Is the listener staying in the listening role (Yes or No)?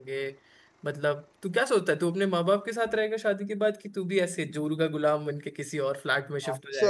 No